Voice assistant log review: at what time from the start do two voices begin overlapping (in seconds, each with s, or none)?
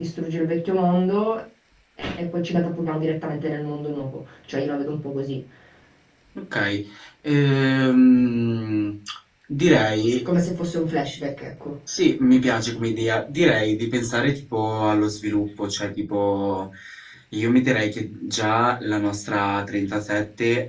none